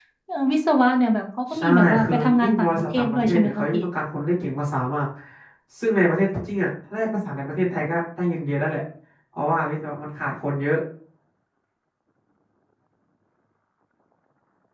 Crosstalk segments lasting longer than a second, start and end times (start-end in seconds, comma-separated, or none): 1.6-3.8